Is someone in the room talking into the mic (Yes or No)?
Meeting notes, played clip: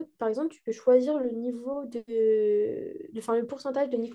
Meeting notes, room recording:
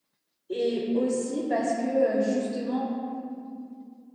Yes